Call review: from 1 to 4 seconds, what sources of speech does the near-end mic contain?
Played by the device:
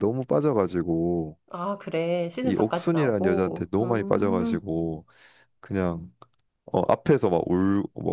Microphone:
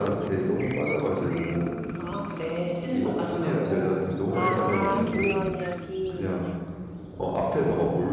echo only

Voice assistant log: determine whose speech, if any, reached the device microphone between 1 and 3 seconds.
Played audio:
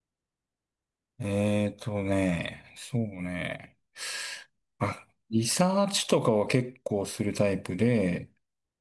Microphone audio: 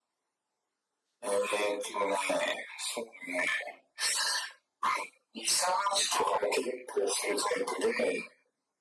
echo only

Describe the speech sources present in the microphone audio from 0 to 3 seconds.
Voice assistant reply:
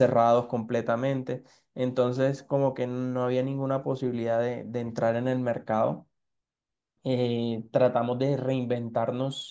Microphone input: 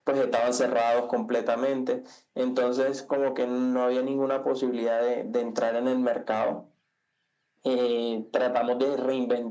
echo only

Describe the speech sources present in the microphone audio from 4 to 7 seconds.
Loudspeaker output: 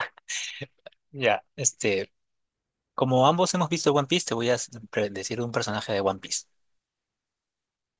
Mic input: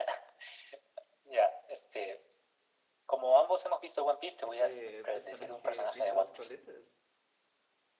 both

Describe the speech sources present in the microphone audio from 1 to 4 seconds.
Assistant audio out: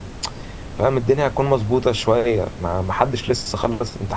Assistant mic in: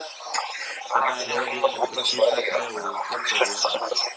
both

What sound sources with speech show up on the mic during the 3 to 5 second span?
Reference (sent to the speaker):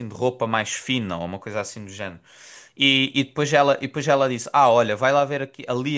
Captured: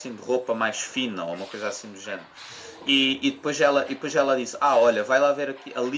echo only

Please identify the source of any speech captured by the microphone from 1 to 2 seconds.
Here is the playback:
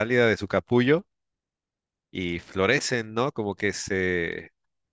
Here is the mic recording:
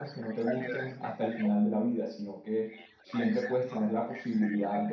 both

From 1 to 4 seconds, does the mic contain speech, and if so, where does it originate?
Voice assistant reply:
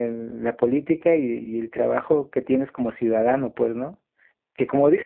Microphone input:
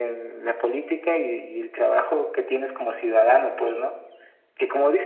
echo only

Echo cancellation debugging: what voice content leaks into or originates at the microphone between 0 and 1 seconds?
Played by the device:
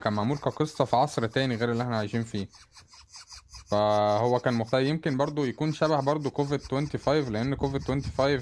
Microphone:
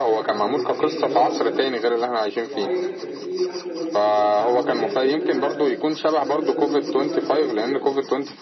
both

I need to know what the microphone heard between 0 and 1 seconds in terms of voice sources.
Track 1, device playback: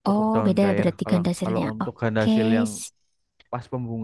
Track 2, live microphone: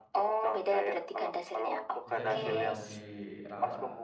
echo only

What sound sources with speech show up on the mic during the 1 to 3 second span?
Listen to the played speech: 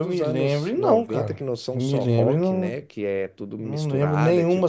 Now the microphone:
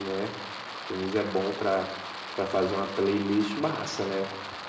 user only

